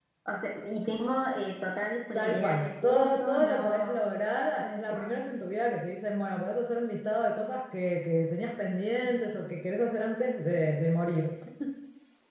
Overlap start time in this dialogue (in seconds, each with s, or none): 2.1 s